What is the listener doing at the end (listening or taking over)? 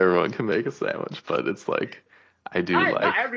taking over